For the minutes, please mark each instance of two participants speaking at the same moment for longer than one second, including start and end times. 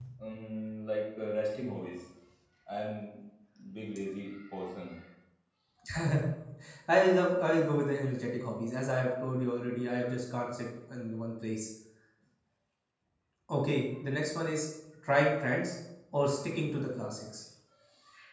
none

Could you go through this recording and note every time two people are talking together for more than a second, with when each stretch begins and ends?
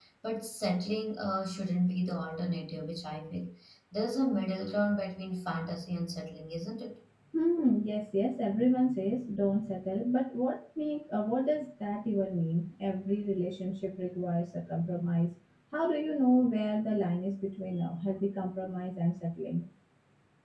none

